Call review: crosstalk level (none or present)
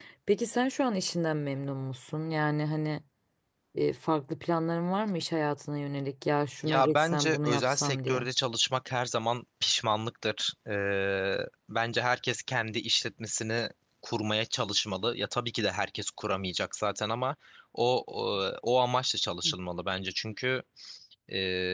present